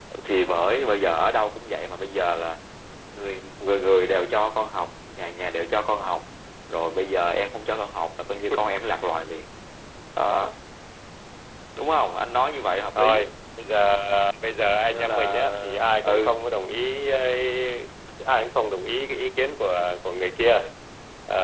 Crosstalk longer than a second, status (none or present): present